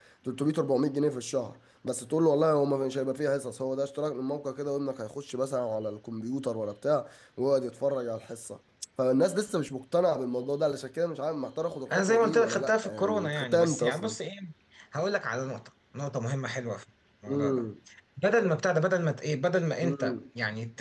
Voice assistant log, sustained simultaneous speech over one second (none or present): present